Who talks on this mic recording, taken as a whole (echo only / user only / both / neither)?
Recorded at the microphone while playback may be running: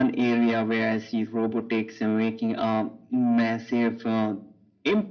echo only